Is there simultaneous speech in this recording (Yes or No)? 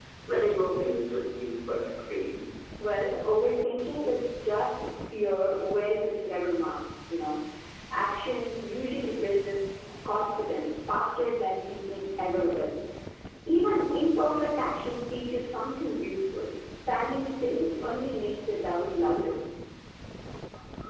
No